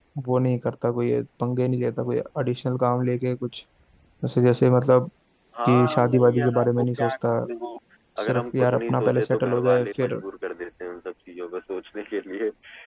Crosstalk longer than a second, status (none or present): present